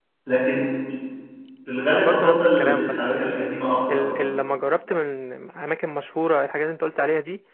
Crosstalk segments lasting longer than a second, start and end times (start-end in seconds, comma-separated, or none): 1.9-3.5